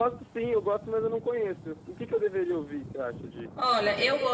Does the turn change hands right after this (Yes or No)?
Yes